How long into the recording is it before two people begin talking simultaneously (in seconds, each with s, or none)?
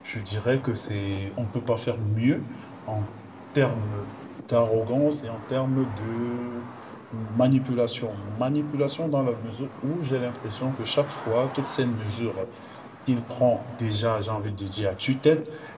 none